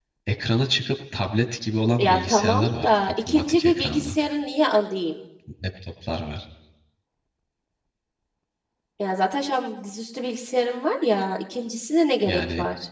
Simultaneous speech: Yes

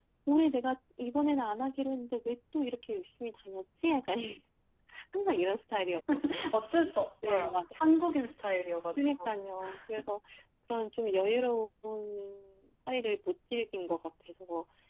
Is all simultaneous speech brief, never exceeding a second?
Yes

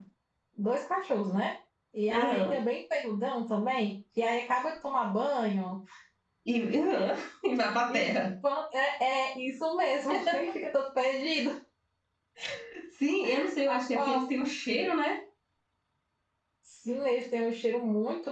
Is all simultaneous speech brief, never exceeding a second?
Yes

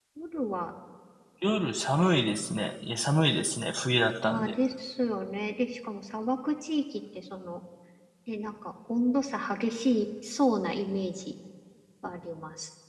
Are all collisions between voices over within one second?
Yes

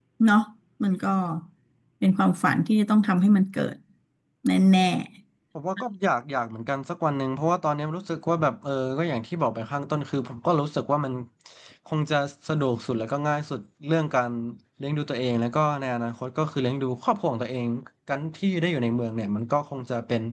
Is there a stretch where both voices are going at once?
No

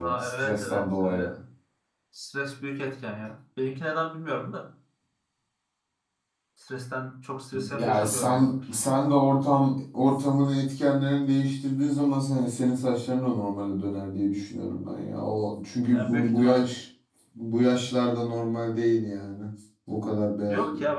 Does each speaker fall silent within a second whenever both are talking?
No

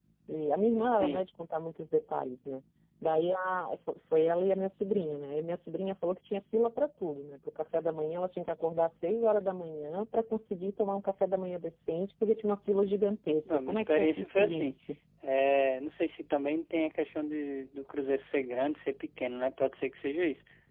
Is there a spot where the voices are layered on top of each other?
Yes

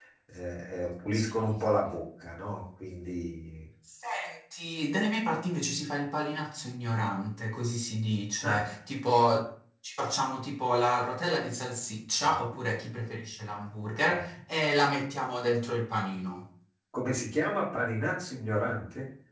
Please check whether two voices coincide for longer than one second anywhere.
No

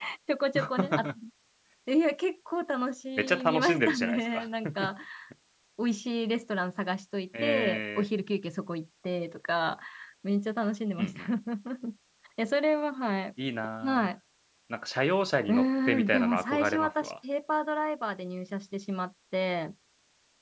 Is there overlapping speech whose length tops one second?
Yes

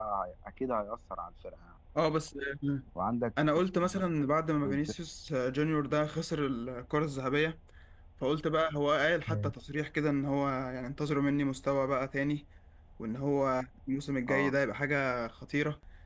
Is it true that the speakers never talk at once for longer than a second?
Yes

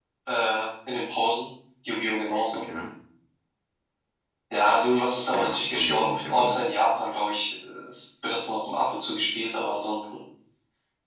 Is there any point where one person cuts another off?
Yes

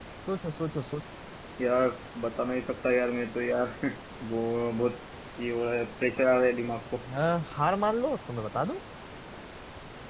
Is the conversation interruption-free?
Yes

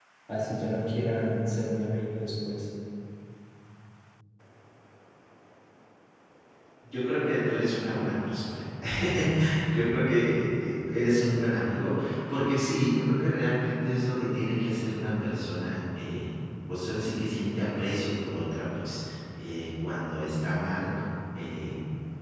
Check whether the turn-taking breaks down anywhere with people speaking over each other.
No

